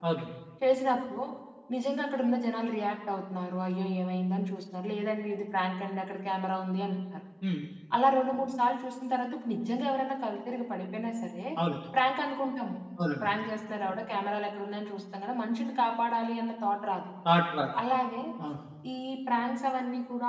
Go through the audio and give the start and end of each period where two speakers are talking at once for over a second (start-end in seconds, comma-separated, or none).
none